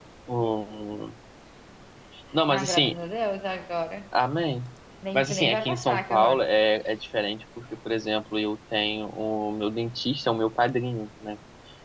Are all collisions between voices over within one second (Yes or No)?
No